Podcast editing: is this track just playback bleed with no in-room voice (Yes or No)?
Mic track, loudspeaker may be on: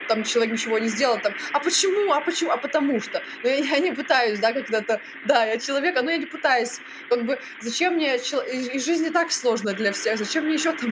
No